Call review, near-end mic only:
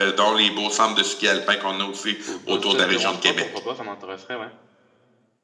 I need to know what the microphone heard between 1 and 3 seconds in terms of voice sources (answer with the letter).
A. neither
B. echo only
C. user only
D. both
D